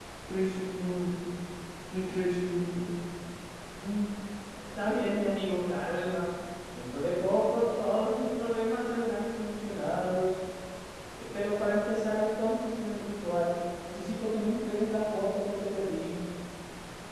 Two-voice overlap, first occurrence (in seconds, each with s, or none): none